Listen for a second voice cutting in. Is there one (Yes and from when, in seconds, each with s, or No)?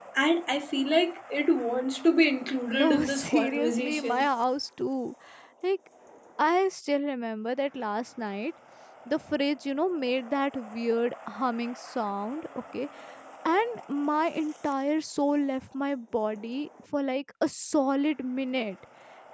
Yes, from 2.7 s